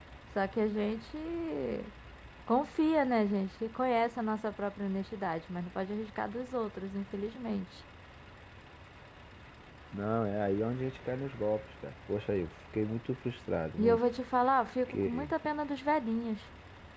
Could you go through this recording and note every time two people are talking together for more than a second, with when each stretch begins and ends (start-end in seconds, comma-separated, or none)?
none